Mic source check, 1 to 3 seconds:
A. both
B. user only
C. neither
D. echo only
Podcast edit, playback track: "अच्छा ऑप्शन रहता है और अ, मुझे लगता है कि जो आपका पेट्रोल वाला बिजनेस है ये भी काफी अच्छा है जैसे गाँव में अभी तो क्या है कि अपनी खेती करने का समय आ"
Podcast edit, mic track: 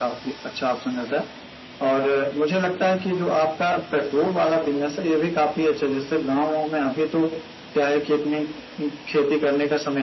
D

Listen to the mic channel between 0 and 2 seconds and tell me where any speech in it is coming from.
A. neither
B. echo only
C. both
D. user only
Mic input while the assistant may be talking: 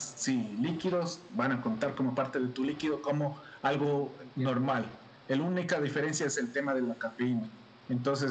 B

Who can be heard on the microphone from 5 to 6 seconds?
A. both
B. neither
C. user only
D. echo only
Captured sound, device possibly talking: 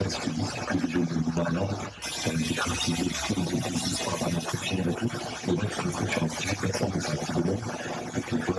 D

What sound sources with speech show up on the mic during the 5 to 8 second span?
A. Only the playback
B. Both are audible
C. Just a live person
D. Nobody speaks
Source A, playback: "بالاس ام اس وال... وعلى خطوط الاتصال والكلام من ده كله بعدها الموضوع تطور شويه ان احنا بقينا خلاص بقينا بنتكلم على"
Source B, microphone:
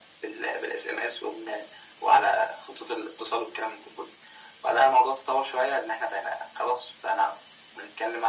A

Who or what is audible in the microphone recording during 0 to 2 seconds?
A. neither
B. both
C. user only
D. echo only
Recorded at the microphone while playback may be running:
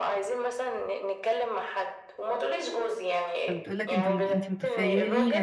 D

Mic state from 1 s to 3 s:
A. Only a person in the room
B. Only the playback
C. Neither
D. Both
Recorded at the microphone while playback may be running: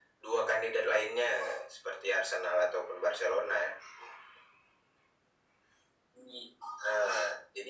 B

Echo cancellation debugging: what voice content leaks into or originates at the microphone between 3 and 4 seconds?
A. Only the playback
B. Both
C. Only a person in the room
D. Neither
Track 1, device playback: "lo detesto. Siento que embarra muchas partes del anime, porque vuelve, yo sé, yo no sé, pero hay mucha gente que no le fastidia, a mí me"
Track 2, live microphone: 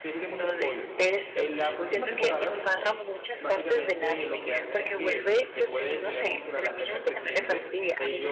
B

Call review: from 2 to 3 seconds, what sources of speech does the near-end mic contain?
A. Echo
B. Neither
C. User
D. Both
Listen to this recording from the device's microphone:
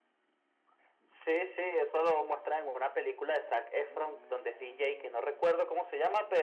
A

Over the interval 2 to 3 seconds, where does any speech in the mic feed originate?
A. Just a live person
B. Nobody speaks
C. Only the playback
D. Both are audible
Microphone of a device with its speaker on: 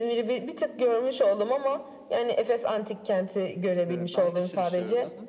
C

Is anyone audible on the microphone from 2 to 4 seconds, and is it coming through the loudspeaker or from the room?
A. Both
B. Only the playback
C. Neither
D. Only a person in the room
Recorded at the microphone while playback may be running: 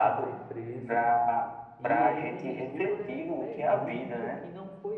A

